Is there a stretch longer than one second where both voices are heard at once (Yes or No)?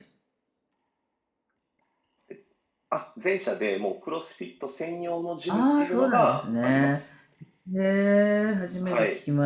Yes